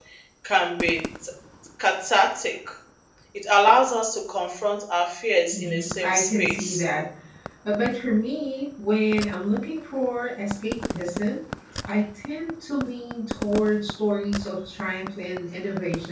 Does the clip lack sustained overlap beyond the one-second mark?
No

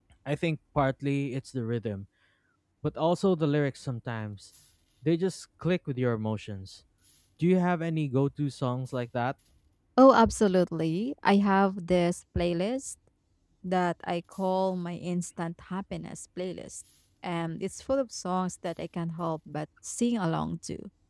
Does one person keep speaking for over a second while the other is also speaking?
No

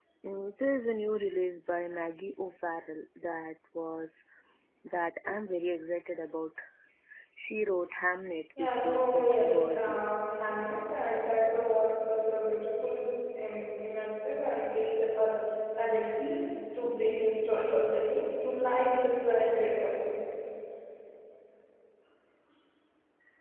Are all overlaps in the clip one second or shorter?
No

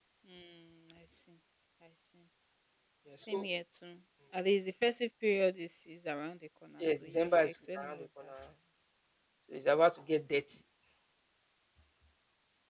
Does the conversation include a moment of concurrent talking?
Yes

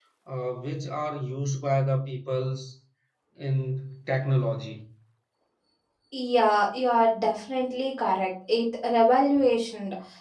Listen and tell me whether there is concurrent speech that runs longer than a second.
No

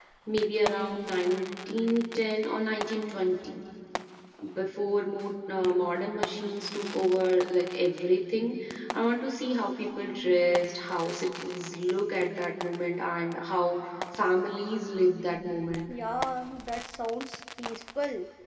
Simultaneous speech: No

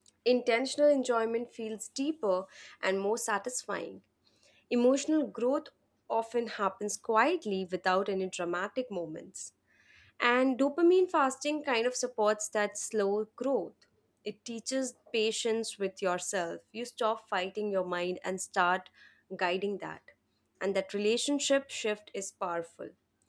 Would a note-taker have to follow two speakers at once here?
No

